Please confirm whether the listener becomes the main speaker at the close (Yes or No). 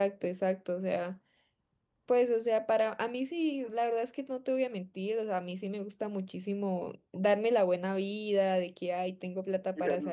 No